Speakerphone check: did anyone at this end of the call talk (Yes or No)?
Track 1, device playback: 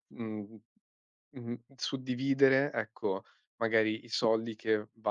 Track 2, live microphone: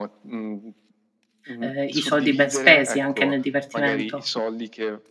Yes